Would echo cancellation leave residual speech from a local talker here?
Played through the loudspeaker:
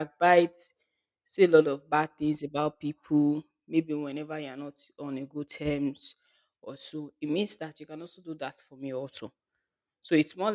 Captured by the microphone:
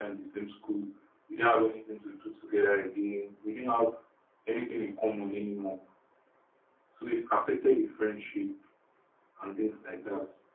Yes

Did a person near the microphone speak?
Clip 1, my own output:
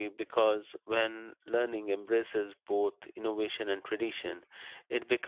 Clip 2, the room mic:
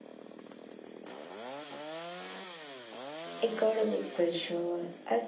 Yes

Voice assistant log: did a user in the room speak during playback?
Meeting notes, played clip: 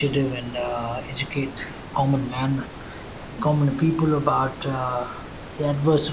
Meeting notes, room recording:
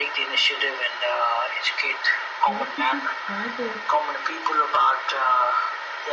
Yes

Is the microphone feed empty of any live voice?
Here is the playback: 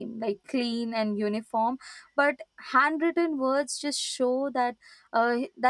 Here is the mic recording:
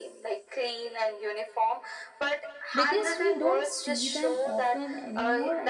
No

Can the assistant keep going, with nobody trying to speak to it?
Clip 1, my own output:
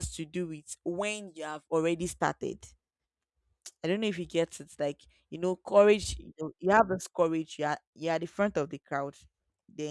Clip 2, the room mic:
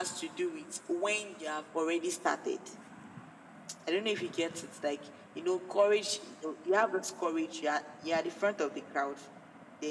Yes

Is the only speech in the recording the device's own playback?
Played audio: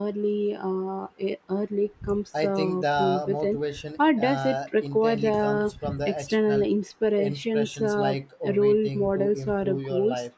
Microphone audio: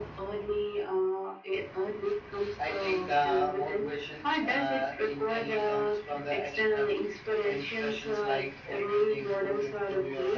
Yes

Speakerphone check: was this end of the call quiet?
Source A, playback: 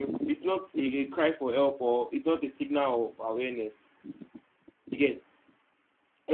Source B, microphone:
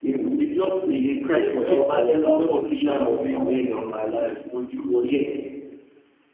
No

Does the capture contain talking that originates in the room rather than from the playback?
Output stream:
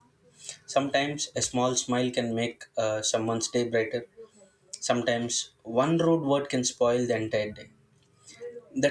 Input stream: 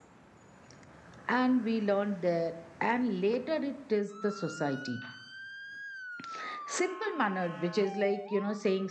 Yes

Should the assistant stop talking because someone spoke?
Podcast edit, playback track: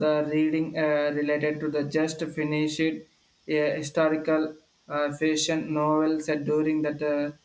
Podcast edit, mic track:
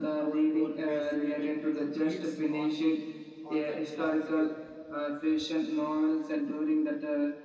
Yes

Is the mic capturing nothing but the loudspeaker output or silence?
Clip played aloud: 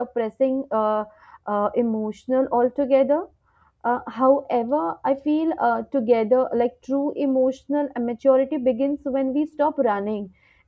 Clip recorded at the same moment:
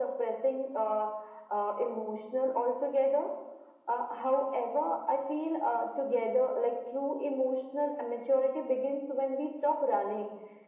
Yes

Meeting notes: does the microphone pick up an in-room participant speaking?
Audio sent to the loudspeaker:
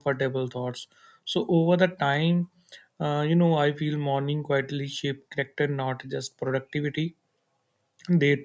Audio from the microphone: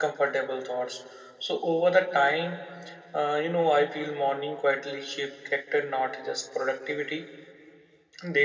No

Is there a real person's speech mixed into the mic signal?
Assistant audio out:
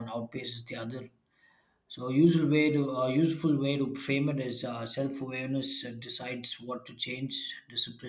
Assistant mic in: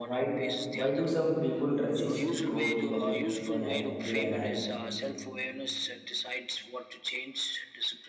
Yes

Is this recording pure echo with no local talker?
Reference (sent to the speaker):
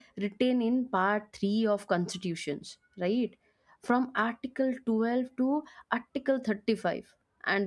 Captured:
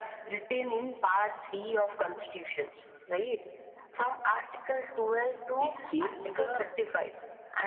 No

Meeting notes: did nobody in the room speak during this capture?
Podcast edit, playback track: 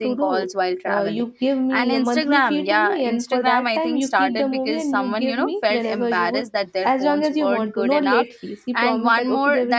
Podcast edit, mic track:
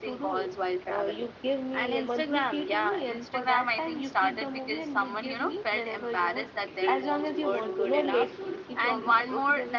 No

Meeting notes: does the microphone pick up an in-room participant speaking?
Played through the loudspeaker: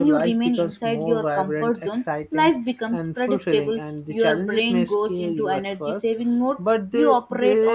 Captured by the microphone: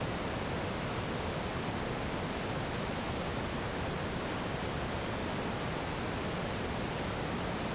No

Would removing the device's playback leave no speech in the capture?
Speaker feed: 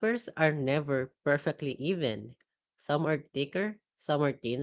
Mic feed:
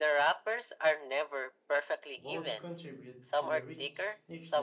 No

